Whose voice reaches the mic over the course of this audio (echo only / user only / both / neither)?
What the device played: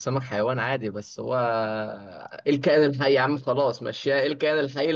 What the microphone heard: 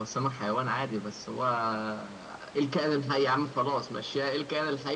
echo only